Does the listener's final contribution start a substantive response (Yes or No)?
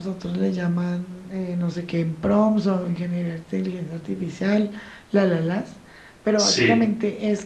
No